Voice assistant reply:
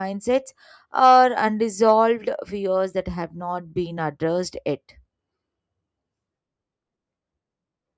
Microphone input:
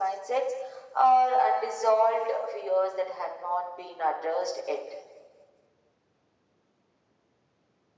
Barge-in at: none

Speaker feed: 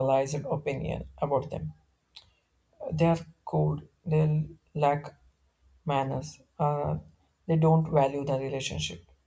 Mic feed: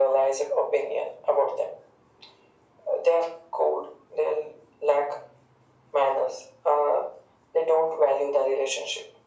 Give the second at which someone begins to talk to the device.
none

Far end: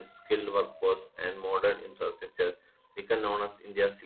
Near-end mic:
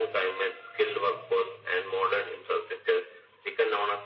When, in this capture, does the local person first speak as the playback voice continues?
none

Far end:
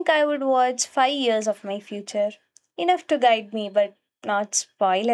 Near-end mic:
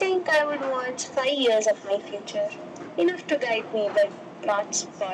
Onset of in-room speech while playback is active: none

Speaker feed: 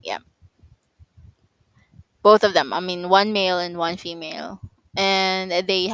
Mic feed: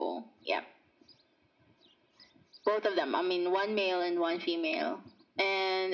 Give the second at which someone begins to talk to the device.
none

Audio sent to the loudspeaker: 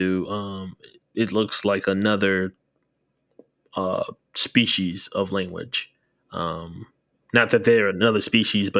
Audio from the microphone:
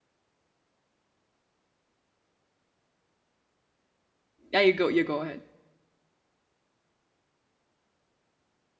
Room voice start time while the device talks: 4.5 s

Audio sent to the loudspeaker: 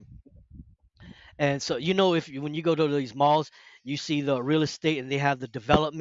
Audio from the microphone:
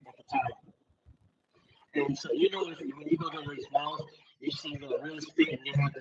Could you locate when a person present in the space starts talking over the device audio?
none

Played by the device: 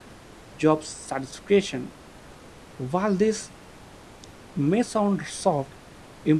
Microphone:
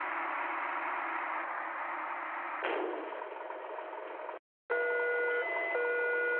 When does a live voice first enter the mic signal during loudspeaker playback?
none

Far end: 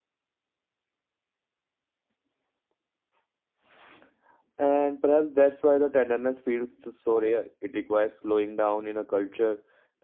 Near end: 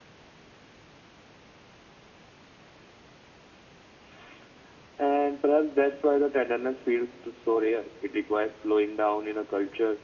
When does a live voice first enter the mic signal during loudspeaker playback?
none

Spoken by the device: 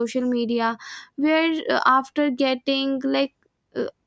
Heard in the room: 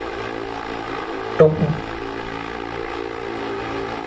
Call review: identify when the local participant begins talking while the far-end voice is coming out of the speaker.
1.4 s

